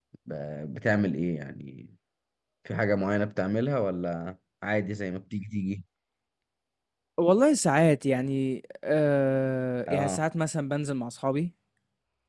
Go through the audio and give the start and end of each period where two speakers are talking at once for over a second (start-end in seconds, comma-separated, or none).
none